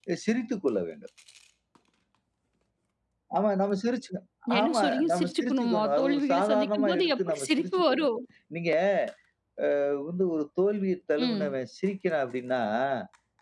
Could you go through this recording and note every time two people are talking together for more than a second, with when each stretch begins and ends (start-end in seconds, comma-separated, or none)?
4.6-8.1